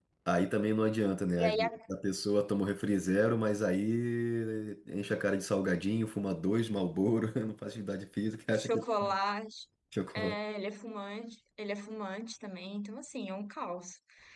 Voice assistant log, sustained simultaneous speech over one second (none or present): none